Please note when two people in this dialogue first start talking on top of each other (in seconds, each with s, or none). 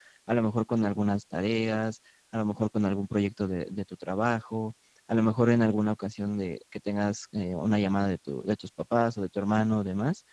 none